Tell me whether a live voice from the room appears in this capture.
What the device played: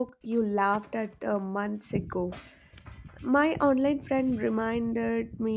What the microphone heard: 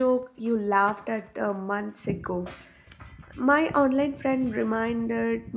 No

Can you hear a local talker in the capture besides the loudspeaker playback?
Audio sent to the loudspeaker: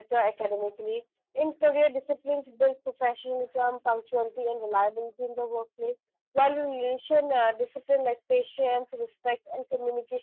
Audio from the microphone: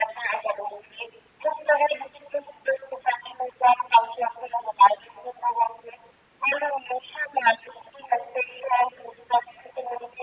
No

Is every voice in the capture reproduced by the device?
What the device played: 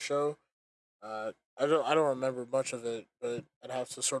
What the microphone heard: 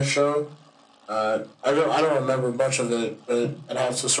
Yes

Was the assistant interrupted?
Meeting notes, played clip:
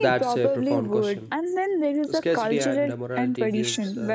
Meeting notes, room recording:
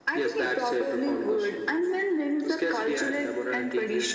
No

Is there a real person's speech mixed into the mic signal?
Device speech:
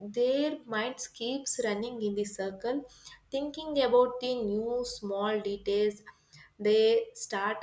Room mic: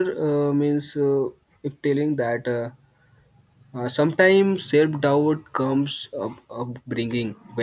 Yes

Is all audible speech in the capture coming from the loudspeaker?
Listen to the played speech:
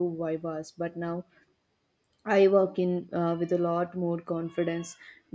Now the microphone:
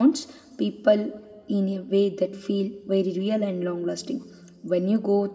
No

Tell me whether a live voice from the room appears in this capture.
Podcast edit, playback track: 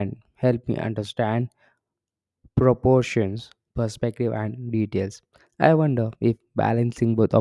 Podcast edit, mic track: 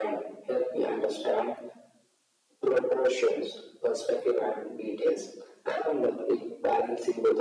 No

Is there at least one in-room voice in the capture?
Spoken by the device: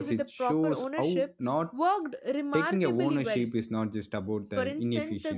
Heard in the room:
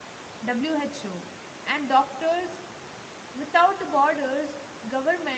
Yes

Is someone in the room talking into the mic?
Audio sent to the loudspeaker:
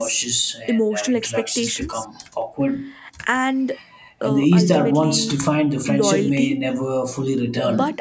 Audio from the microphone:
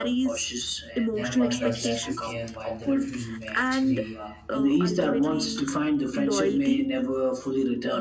Yes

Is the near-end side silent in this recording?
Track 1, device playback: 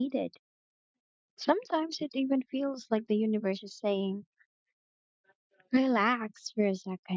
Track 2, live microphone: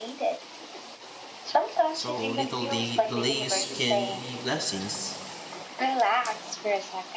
No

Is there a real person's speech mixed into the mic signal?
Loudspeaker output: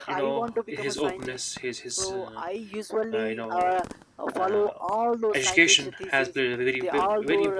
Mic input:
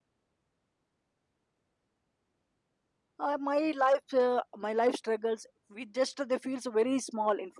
Yes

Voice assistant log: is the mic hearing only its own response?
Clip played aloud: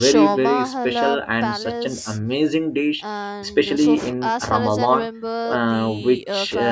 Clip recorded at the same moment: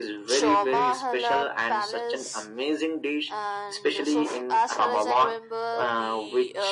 Yes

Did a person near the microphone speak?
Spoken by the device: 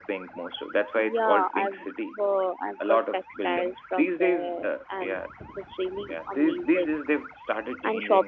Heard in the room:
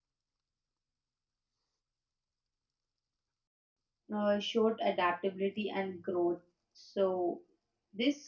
Yes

